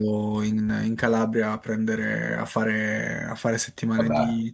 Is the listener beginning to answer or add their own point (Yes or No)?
No